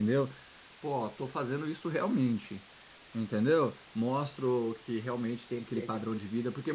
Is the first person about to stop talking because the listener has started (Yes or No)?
No